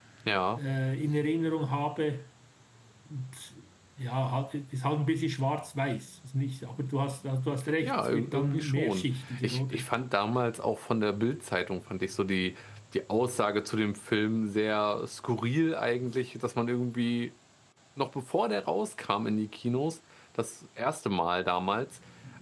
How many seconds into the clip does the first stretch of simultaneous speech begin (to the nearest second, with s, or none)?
8 s